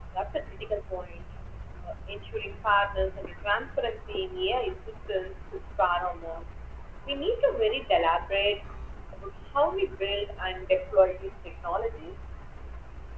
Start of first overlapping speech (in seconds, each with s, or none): none